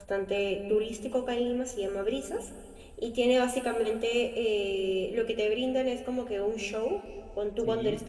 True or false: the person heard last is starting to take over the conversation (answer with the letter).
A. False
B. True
A